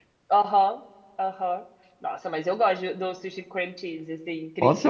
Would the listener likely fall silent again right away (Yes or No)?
No